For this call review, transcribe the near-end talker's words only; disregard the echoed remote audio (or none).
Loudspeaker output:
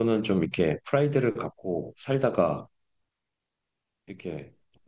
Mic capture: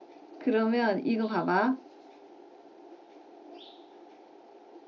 그러면 이거 봐봐.